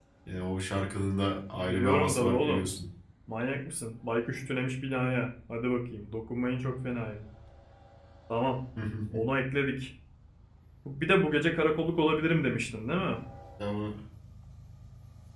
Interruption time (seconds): 1.5 s

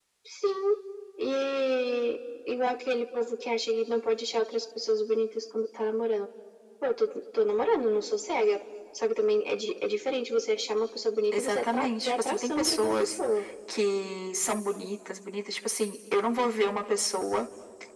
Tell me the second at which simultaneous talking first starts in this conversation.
11.3 s

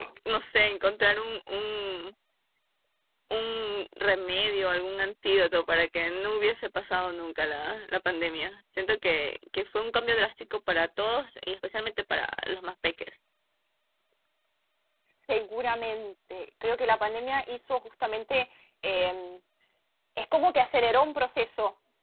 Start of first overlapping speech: none

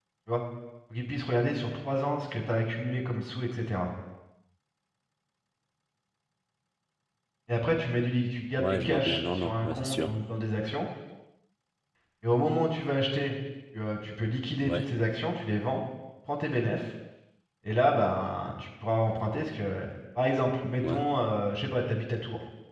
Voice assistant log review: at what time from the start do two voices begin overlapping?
8.6 s

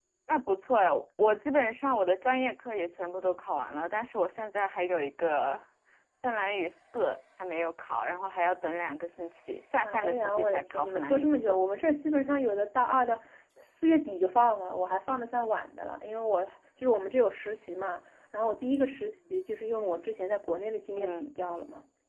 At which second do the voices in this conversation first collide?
9.8 s

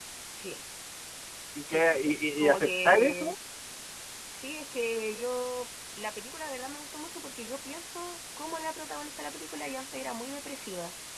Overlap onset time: 1.6 s

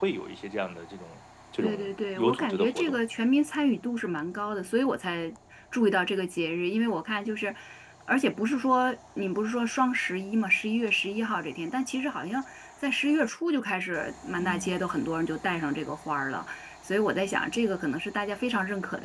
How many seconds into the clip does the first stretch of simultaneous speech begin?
1.6 s

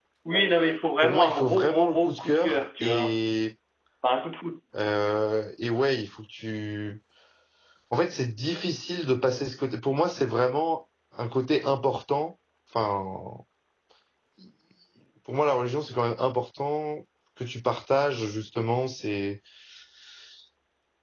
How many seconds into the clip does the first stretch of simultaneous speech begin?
1.0 s

